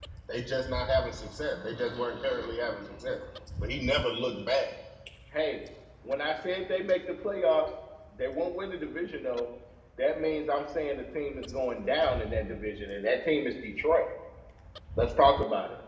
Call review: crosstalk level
none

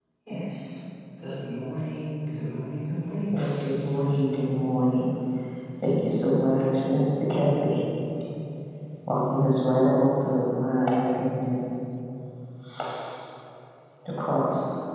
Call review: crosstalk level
none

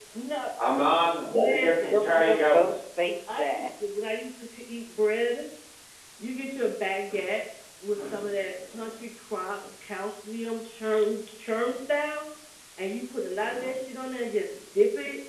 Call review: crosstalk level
present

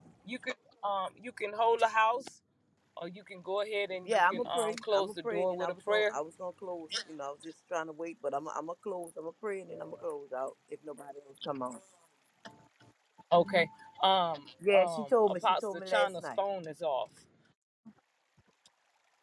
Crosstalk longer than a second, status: present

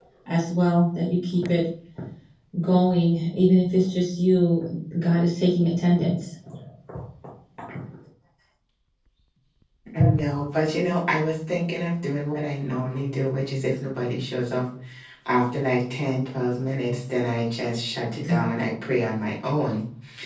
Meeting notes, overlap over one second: none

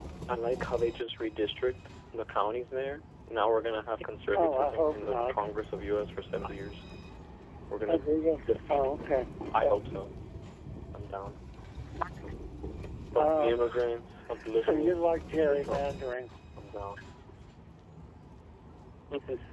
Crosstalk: present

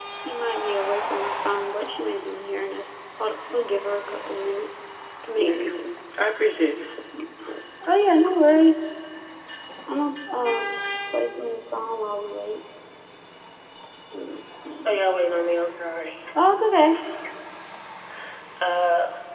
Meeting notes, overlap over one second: none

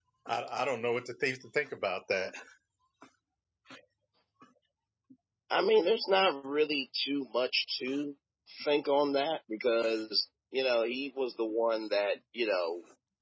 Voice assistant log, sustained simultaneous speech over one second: none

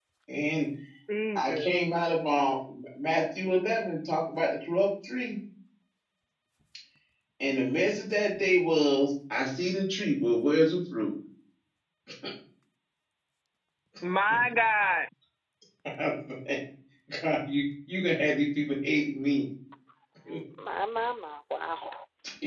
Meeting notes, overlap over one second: none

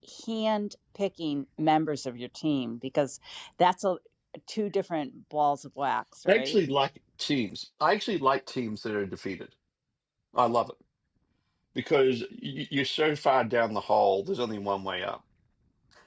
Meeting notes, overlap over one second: none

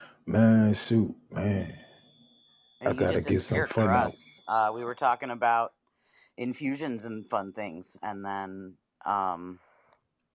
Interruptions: present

